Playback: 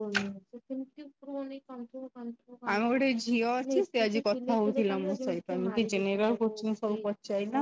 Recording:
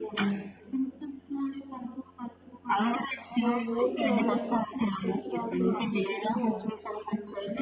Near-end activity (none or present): present